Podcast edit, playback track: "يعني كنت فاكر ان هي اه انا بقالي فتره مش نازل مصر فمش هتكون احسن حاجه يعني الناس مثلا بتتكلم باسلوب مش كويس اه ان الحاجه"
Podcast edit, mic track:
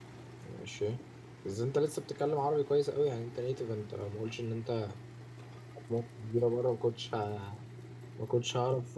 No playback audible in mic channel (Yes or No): Yes